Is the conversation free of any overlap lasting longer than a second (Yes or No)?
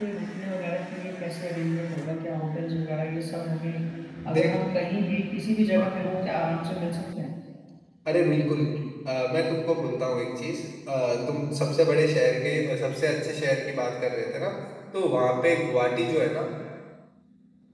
Yes